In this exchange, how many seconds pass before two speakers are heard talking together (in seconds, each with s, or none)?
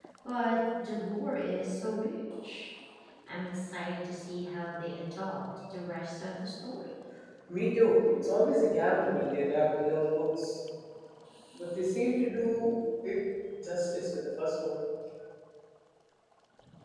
none